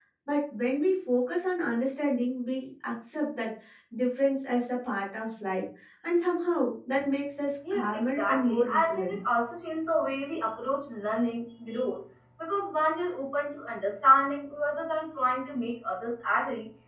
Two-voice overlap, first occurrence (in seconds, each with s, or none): 7.6 s